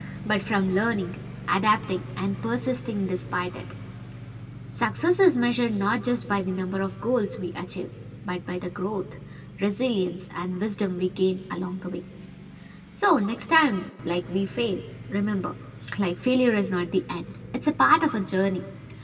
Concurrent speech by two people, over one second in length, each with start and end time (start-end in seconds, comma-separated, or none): none